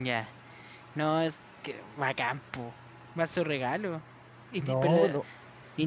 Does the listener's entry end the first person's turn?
No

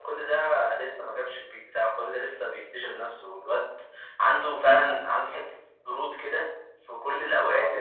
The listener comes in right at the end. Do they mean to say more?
No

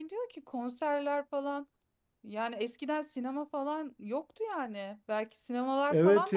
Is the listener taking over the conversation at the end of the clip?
Yes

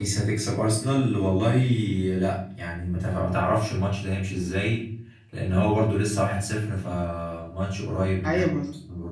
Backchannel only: No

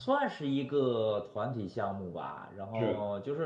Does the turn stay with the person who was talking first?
Yes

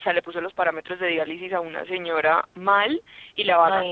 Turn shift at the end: No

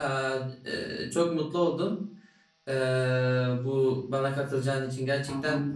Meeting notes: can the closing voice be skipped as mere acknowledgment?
Yes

